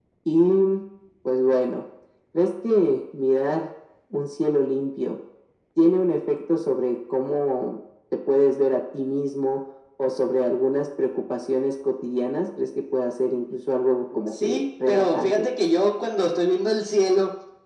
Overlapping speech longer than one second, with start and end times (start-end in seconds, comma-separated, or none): 14.3-15.5